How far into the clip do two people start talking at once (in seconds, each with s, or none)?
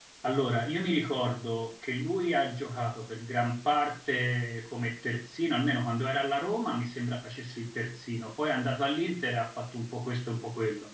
none